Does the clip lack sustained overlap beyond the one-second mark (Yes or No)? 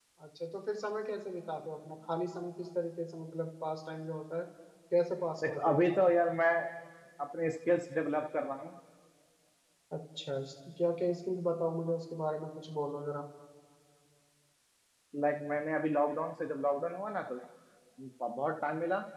Yes